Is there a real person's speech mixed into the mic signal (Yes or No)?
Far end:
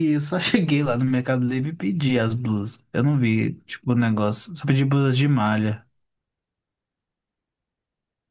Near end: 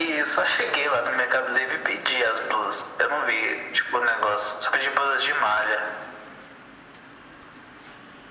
No